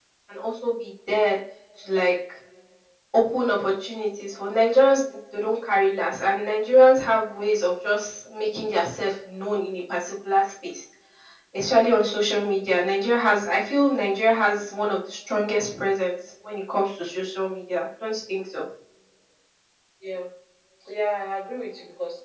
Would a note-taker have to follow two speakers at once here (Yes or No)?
No